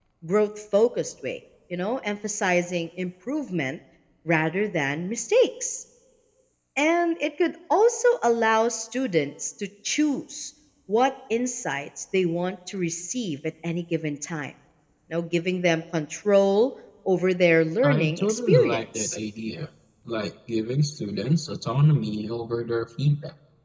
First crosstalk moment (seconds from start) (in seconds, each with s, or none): 17.8 s